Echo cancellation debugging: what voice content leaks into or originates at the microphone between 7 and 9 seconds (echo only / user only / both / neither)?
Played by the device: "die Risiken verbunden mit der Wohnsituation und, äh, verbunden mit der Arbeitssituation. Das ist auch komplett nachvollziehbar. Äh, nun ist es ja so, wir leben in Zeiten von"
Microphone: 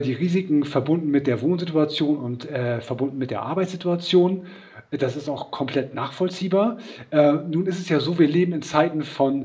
echo only